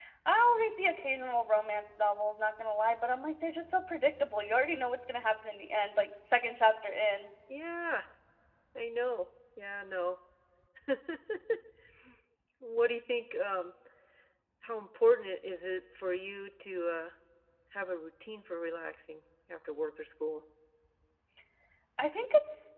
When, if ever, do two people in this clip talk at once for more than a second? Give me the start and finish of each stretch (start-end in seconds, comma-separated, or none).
none